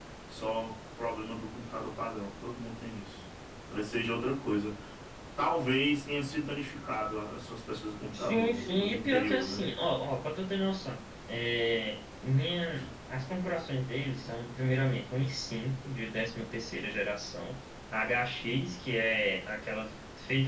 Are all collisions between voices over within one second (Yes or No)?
No